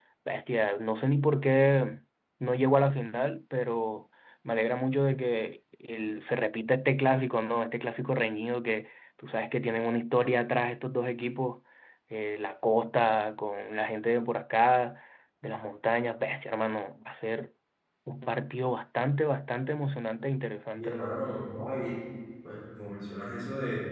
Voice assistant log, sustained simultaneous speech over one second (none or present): none